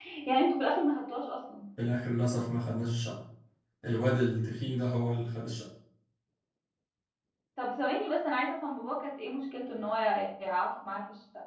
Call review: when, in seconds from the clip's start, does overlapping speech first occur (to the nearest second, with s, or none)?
none